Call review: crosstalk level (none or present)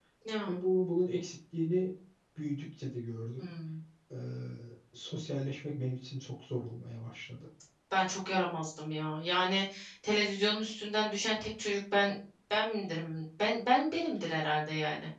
none